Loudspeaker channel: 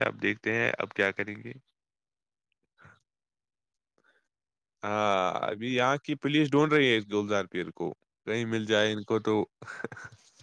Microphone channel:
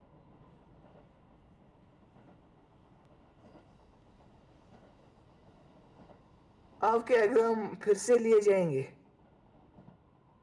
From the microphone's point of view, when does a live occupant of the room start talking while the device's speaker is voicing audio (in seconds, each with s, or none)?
6.9 s